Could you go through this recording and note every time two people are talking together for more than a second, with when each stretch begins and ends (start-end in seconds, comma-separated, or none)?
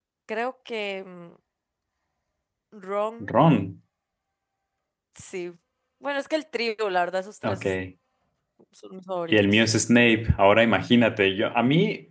none